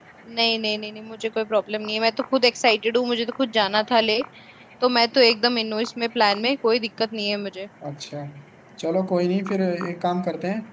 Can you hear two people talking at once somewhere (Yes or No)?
No